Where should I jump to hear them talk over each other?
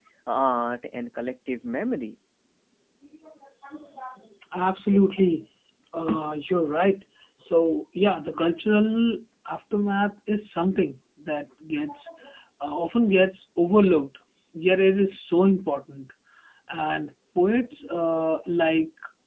none

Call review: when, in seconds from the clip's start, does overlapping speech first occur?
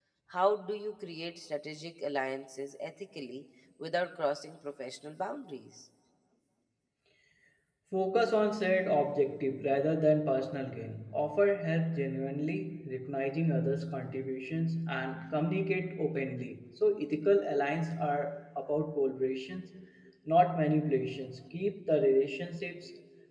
none

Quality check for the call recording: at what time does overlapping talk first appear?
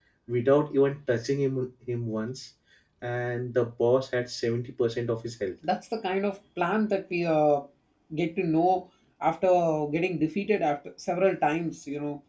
none

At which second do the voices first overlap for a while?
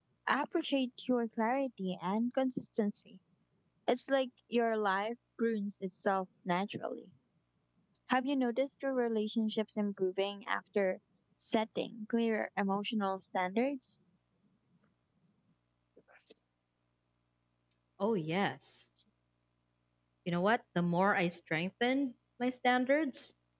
none

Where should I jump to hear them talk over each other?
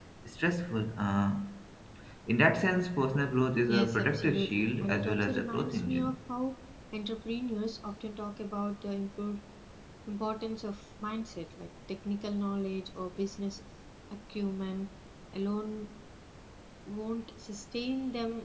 4 s

